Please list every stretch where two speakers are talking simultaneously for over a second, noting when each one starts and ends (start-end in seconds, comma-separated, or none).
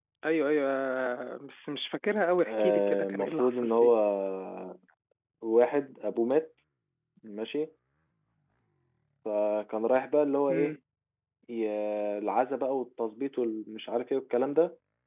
2.5-3.9